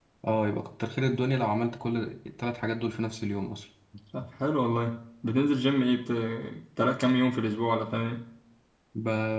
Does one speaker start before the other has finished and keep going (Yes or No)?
No